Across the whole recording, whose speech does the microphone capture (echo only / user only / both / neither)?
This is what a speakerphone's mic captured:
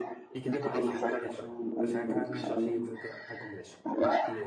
both